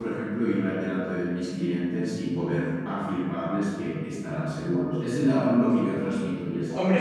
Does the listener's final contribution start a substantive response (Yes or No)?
Yes